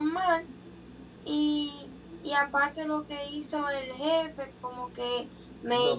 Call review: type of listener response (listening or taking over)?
taking over